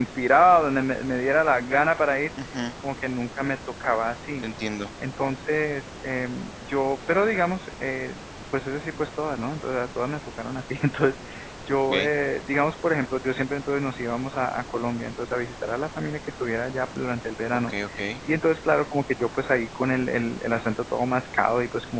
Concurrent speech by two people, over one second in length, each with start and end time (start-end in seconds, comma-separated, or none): none